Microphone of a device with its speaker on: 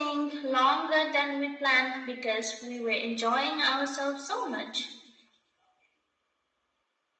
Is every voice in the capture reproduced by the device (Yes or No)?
Yes